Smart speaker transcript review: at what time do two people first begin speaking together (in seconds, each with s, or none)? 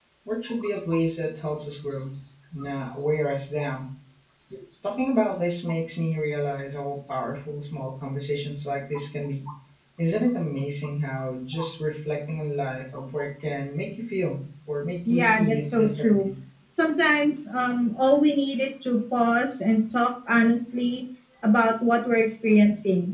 15.1 s